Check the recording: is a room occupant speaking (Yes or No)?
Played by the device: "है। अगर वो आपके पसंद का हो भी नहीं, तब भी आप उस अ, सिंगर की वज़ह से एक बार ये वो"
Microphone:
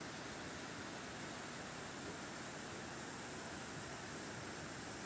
No